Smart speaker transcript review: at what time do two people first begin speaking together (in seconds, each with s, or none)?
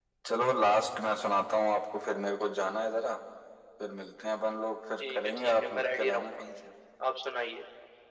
5.0 s